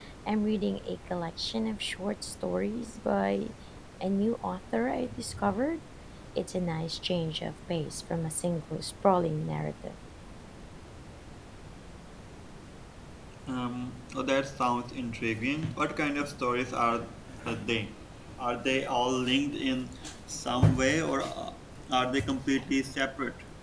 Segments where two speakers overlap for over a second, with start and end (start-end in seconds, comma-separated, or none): none